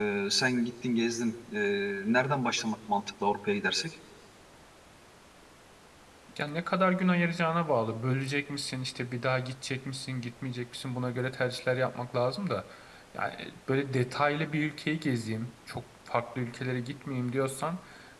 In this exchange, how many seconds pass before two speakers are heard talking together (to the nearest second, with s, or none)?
none